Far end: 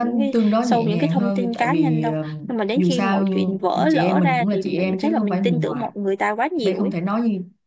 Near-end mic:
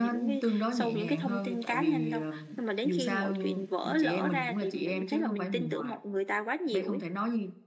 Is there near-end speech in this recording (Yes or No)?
No